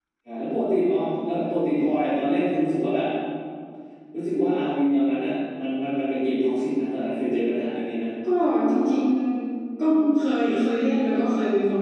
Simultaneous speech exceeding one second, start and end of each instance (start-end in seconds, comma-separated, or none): none